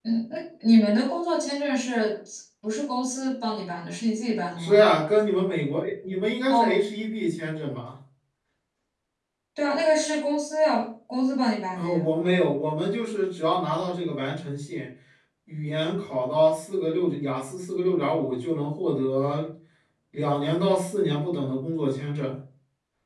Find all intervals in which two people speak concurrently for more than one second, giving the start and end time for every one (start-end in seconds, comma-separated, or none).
none